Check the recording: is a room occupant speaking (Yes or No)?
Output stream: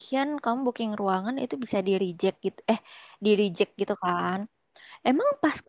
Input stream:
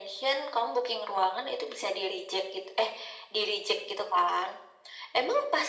No